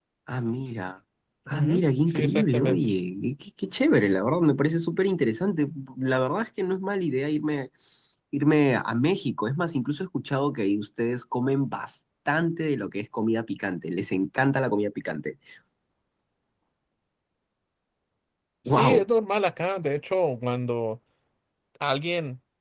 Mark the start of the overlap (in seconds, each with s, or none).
1.5 s